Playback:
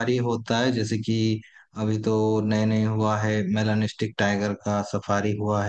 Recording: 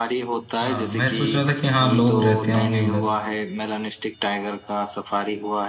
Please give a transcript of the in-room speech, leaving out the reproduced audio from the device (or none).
अच्छा मैं सोच रहा था कि हाँ लोग रहते होंगे उधर